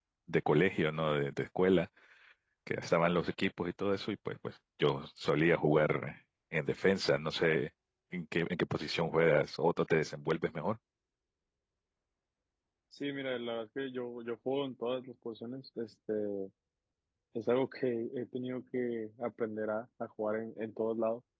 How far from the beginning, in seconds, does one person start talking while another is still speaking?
none

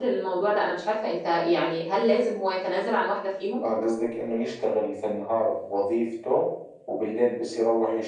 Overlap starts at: none

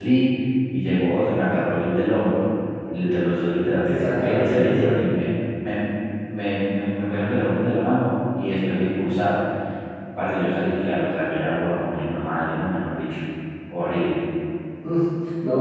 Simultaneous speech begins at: 3.7 s

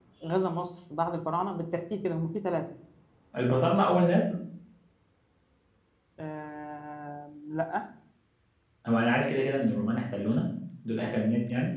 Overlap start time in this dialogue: none

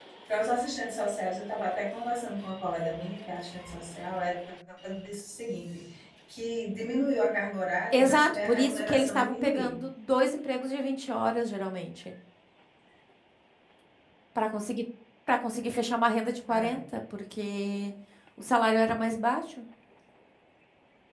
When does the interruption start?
7.9 s

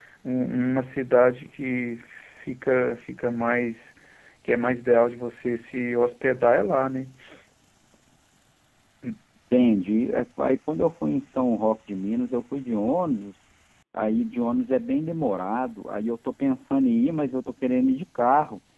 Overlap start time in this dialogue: none

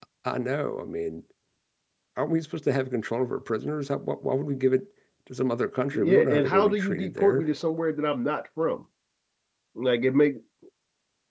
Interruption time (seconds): 5.9 s

